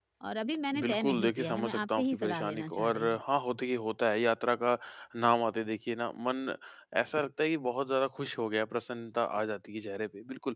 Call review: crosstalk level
present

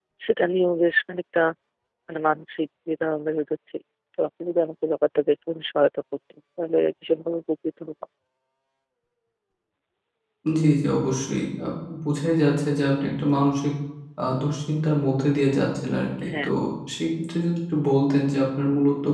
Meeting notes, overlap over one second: none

